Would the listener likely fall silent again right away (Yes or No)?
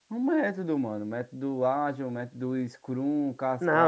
No